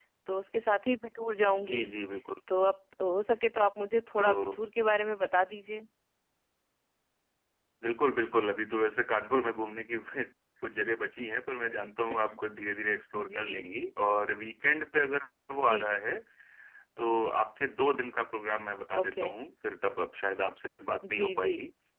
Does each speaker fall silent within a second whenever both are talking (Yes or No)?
Yes